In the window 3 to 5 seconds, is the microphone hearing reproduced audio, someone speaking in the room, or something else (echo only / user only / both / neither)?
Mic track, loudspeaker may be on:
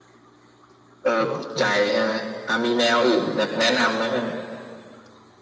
echo only